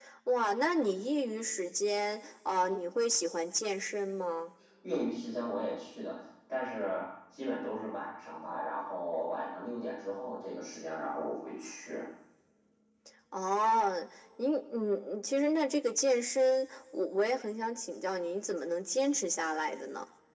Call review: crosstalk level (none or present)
none